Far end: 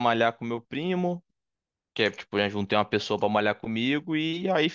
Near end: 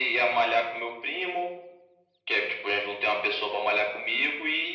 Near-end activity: none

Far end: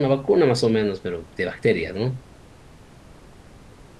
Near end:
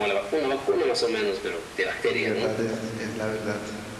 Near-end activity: present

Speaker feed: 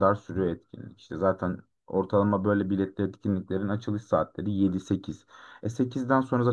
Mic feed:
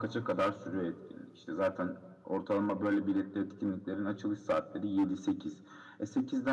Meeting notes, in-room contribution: none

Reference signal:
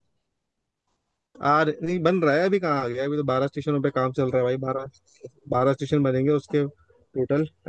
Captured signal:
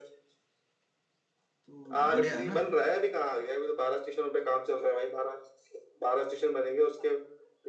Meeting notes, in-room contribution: present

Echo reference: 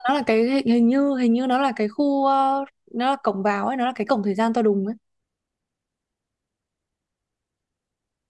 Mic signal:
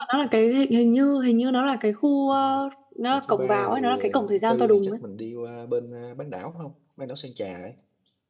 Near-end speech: present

